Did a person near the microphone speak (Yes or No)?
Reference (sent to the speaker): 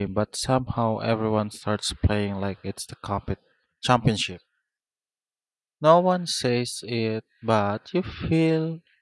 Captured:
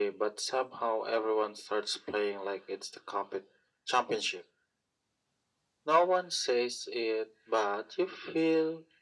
No